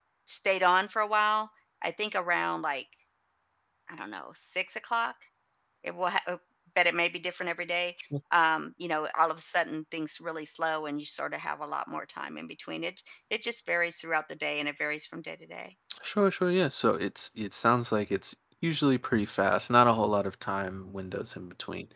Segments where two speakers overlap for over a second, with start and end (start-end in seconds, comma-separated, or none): none